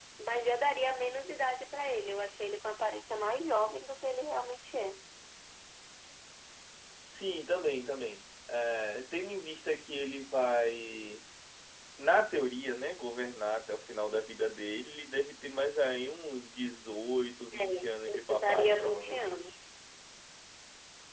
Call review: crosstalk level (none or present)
present